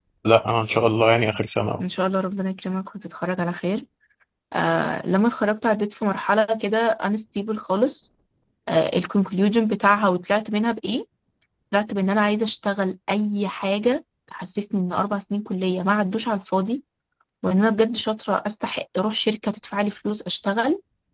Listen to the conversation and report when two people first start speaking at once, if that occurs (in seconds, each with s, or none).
none